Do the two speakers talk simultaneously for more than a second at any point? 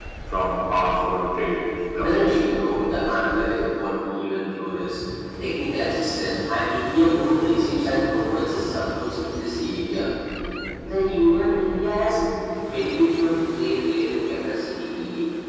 No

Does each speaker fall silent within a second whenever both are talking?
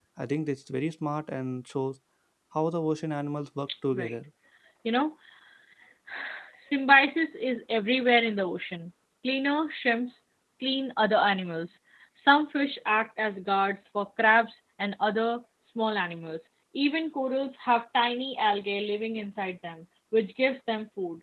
Yes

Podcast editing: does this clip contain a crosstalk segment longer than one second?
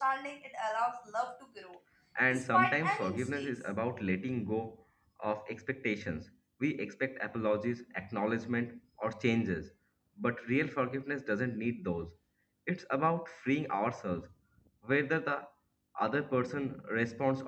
Yes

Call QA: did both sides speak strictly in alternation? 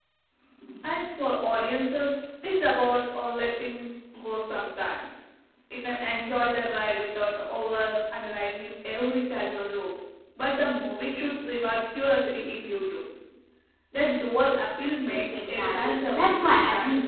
No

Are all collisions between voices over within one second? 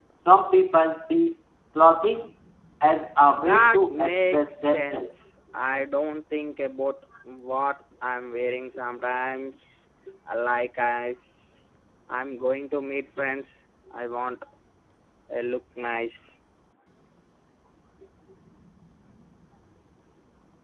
No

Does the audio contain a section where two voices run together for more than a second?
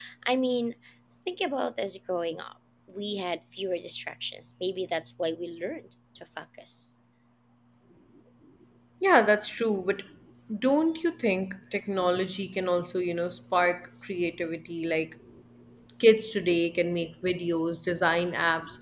No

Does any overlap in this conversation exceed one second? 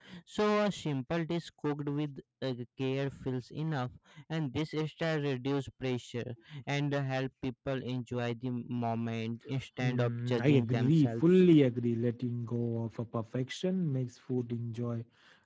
Yes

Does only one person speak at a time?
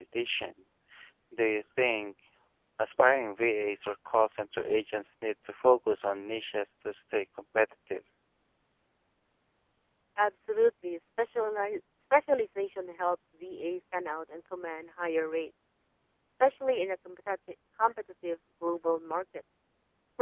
Yes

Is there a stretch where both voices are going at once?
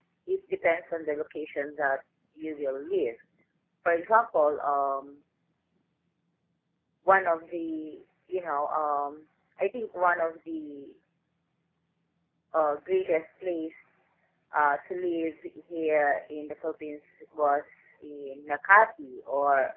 No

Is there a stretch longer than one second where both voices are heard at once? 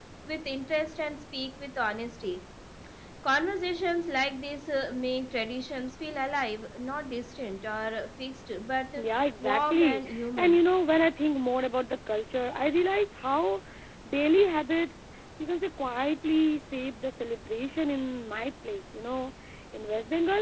Yes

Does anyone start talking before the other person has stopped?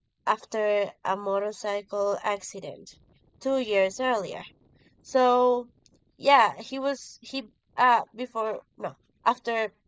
No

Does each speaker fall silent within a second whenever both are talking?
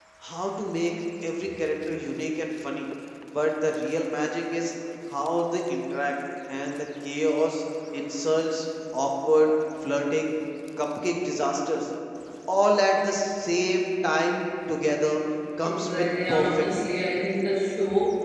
No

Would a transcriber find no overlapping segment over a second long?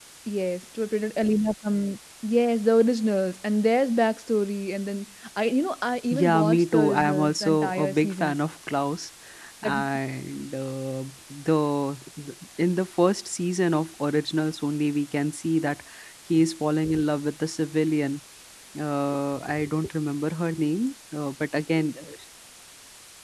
No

